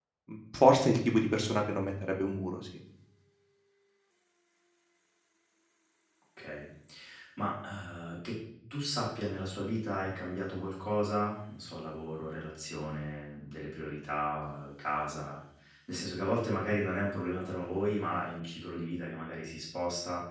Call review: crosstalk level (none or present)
none